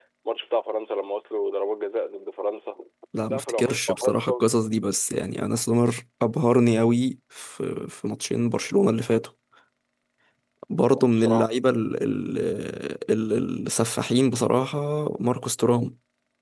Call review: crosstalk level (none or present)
present